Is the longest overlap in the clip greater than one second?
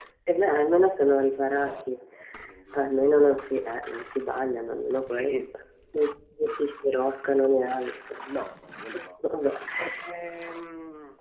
No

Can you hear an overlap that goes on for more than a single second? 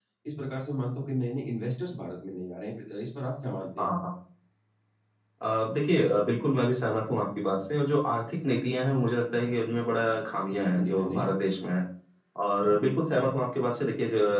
No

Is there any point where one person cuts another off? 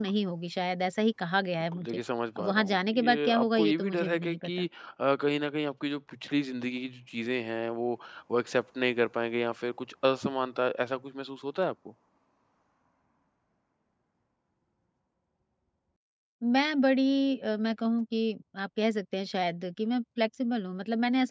Yes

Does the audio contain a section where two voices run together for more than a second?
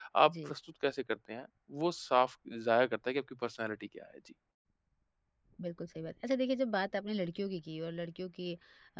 No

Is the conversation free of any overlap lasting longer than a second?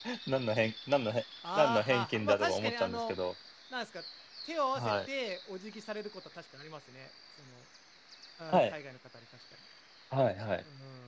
No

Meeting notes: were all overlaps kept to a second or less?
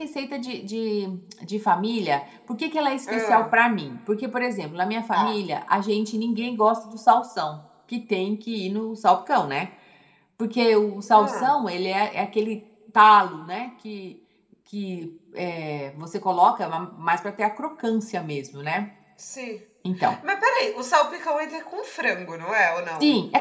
Yes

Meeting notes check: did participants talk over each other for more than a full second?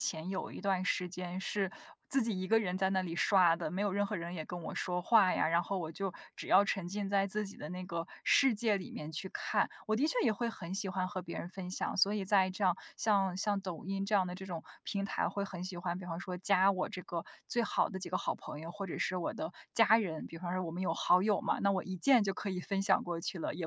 No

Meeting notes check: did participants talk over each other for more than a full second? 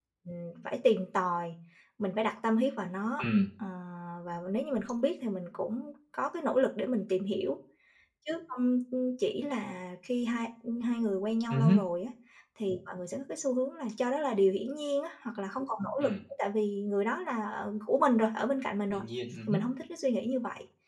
No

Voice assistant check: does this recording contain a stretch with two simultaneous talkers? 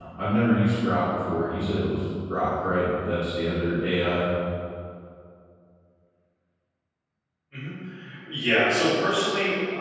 No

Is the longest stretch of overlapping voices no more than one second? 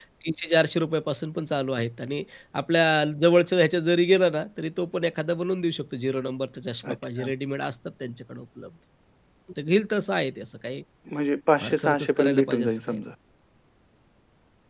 No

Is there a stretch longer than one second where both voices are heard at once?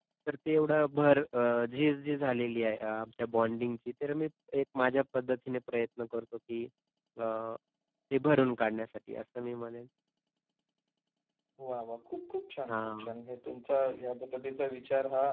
No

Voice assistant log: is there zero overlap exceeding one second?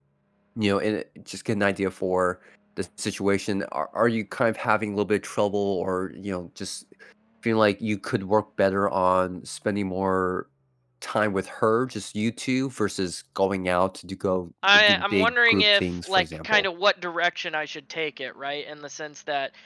No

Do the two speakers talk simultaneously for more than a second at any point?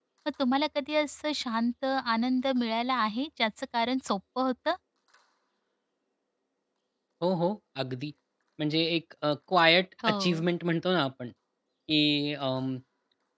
No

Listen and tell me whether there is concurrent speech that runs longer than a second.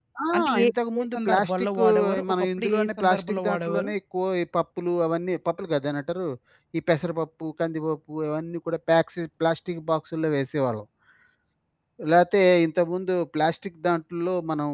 Yes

